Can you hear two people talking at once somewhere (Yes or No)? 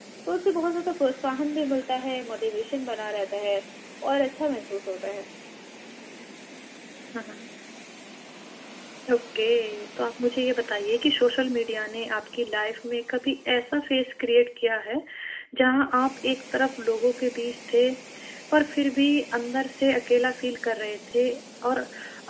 No